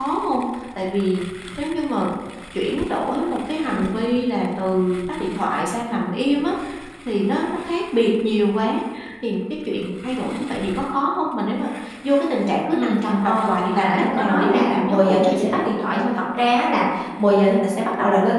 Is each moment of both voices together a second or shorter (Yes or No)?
No